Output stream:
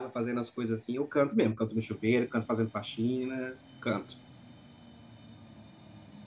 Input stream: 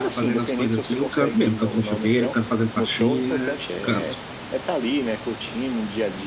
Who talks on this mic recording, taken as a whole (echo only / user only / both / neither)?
both